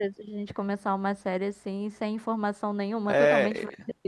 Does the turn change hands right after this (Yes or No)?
Yes